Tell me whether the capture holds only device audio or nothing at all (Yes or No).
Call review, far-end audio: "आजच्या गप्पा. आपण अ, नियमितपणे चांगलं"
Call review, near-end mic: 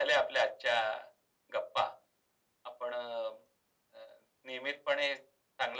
Yes